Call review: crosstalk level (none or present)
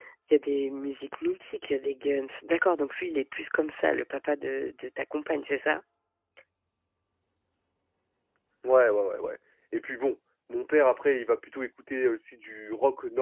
none